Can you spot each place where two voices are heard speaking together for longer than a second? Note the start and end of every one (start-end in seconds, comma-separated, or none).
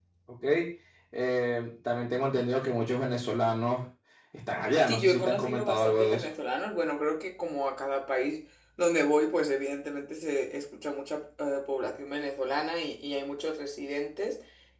4.9-6.3